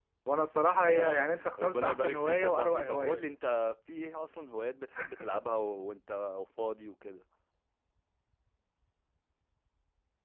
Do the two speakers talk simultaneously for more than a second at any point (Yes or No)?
Yes